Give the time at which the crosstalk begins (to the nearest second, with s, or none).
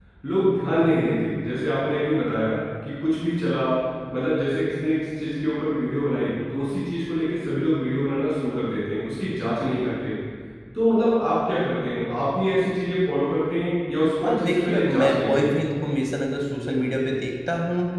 14 s